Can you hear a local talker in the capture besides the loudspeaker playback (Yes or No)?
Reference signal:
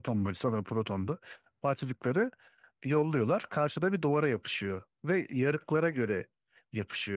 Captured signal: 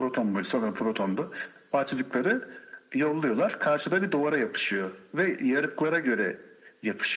No